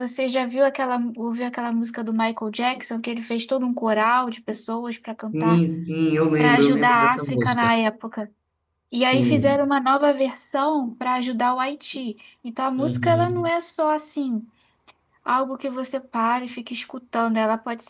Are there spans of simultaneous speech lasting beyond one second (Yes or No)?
Yes